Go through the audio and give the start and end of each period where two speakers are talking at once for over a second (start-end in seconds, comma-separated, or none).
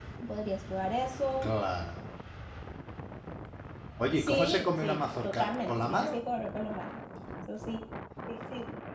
4.2-6.2